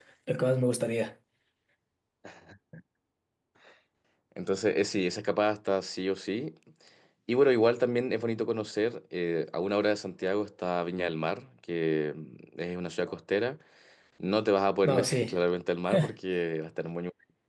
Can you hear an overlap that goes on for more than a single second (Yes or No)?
No